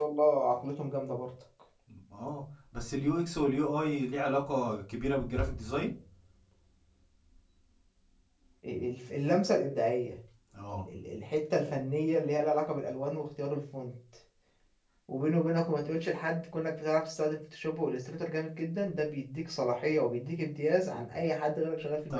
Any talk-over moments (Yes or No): No